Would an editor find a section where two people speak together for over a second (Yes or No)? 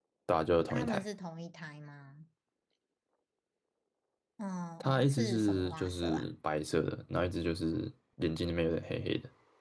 Yes